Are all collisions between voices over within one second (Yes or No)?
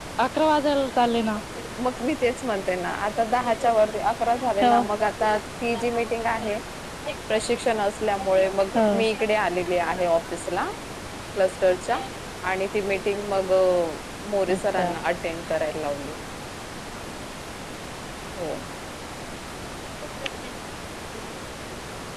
Yes